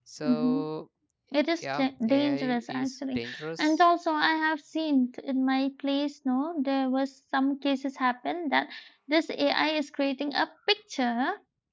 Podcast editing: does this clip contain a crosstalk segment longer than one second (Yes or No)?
Yes